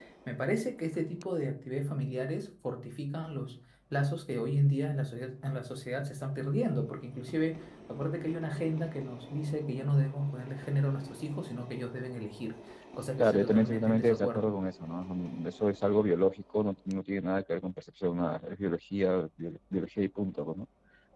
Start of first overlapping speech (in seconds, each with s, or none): 13.2 s